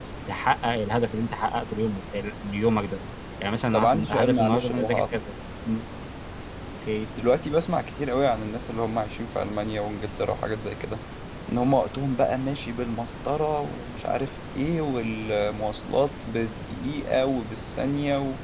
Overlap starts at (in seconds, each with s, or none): 3.7 s